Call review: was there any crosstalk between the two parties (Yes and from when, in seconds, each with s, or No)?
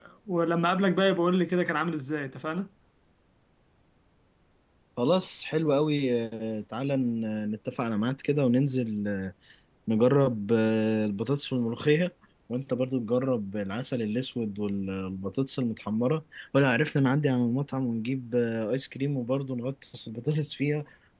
No